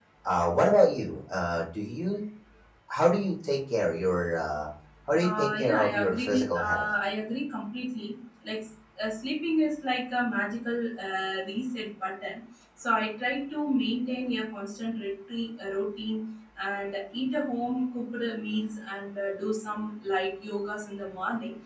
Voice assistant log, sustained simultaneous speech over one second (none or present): present